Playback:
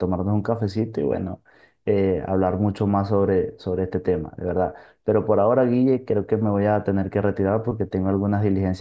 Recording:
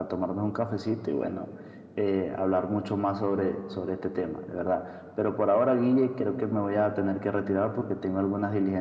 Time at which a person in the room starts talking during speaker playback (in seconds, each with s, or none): none